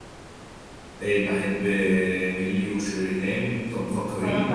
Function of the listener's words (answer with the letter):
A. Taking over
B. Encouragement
B